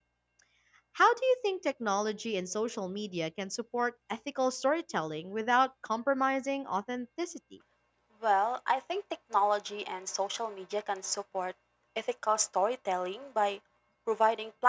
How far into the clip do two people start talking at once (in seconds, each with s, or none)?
none